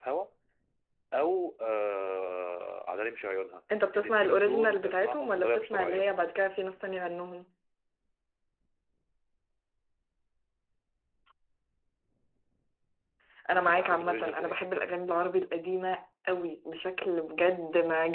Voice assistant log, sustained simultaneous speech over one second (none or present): present